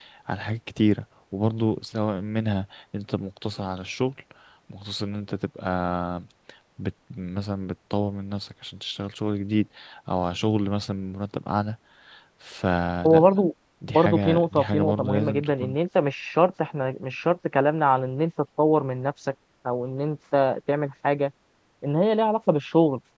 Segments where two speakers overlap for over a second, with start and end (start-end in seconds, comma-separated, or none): 13.9-15.8